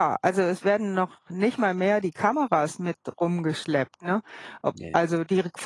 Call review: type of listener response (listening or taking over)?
listening